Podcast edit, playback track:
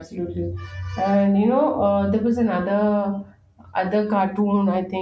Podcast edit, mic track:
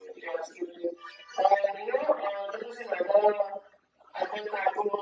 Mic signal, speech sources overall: echo only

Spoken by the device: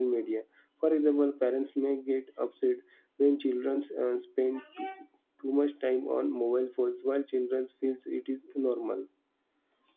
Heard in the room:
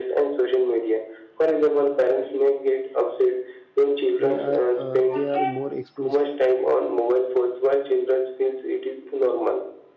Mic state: both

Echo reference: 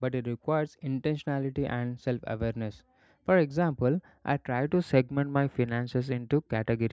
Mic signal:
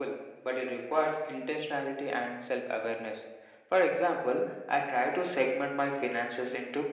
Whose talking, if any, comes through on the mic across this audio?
echo only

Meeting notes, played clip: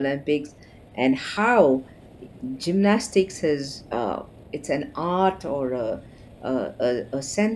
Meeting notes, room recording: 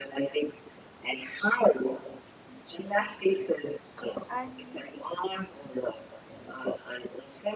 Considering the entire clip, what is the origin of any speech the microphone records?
both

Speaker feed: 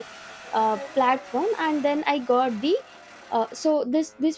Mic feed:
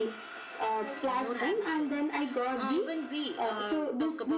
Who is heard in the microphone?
both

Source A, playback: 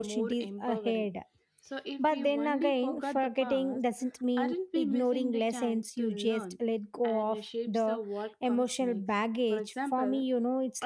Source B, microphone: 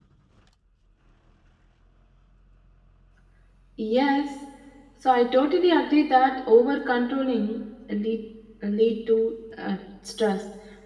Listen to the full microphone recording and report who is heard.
user only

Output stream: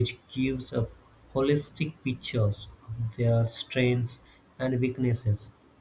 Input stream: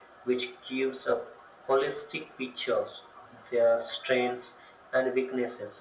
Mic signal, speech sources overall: echo only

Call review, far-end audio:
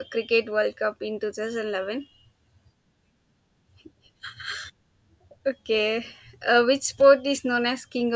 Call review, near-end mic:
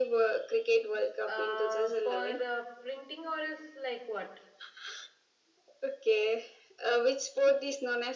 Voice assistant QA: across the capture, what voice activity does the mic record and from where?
both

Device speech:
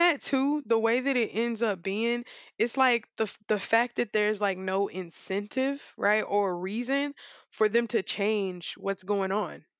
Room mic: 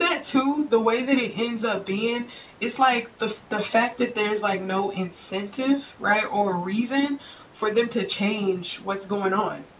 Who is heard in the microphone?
echo only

